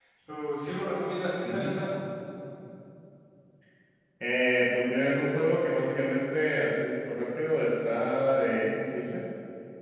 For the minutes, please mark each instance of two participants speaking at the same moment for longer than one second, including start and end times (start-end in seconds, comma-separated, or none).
none